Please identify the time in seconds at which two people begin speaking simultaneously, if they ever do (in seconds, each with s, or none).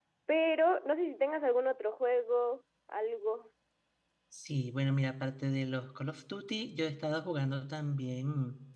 none